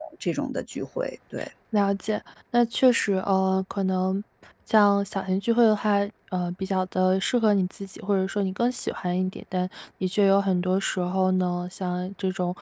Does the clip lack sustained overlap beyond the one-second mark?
Yes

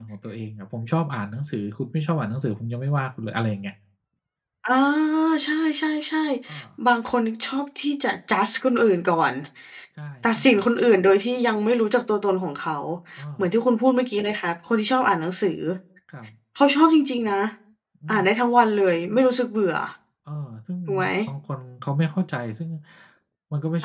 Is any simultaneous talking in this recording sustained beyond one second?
No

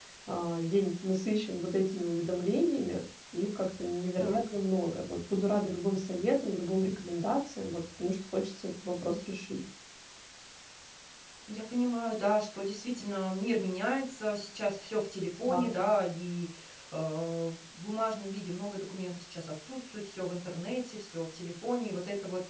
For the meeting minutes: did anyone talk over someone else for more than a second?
No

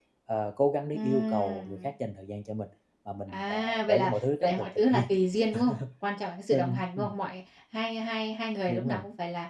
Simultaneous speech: Yes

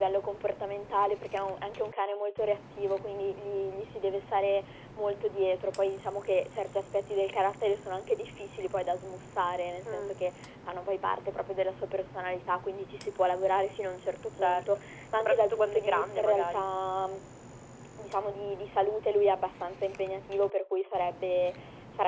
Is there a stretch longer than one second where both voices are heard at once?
Yes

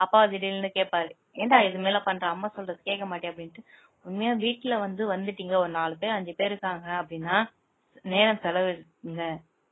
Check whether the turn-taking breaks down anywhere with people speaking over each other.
No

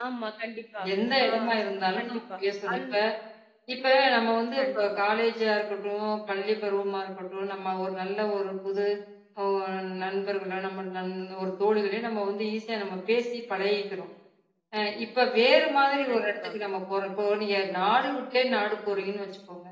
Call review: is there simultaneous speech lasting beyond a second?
No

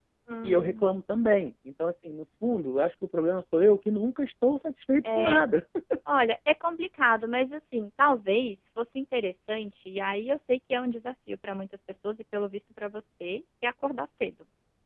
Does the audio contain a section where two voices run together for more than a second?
No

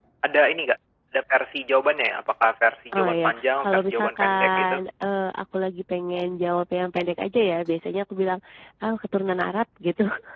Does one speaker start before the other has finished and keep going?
Yes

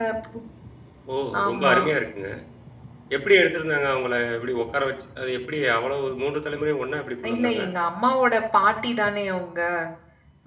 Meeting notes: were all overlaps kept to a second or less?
Yes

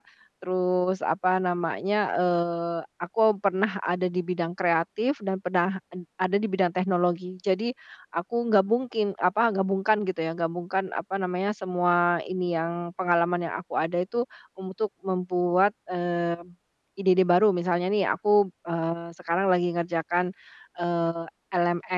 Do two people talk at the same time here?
No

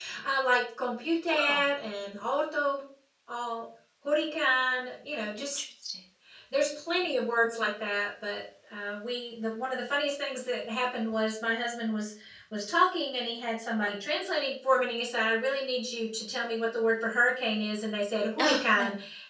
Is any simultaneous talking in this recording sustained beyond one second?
No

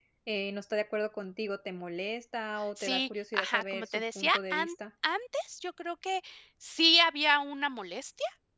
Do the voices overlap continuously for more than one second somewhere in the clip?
Yes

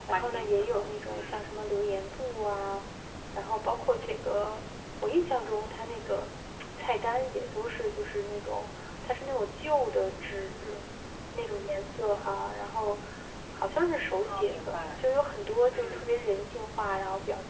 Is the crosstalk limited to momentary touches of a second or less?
No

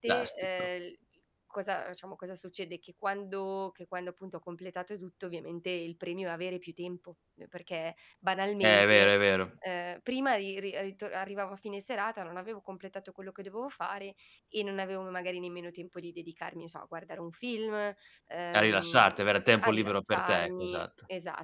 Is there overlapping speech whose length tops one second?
Yes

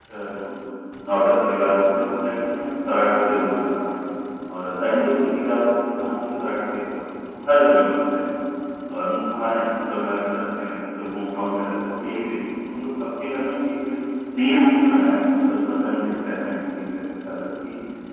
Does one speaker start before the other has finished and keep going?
No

